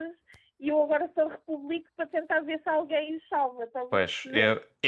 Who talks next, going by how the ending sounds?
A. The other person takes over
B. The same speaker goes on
A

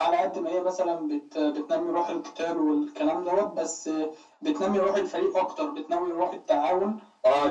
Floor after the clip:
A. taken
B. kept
A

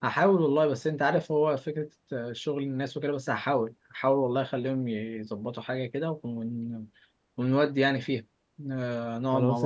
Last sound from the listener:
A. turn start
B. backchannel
A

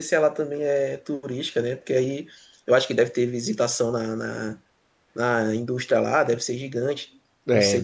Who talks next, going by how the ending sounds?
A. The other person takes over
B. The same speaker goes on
A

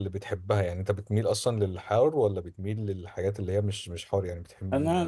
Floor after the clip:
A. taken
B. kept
A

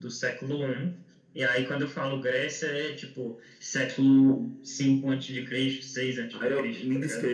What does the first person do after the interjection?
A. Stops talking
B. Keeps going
A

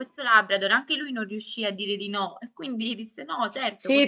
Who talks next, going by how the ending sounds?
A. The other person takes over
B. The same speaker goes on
A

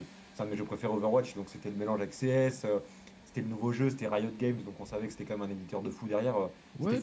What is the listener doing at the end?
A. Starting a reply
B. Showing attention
A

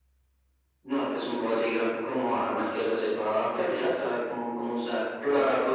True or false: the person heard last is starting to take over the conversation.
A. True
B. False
A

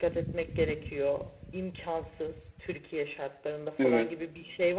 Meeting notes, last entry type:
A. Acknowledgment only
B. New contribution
A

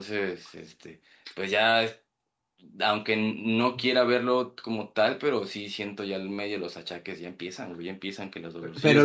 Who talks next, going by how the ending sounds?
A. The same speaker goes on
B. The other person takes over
B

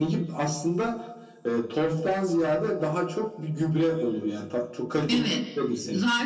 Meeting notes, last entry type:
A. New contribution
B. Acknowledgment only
A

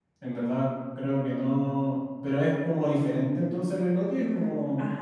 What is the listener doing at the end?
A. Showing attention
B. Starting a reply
B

